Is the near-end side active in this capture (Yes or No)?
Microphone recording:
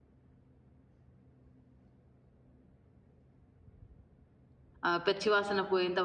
Yes